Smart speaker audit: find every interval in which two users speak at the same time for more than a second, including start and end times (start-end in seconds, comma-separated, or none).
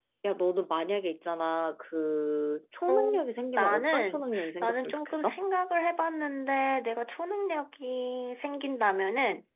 3.6-5.4